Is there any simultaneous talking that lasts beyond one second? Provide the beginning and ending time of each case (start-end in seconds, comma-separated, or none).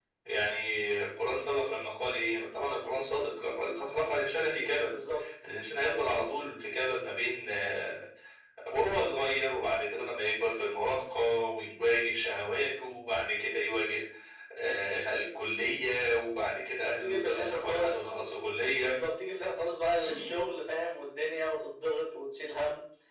16.8-18.2